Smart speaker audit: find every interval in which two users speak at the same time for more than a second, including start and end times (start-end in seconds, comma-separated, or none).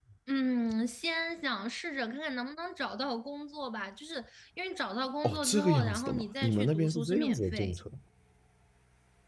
5.2-7.7